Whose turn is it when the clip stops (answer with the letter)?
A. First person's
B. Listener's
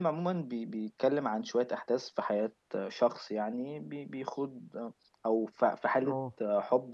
A